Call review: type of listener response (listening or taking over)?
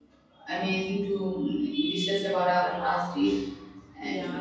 taking over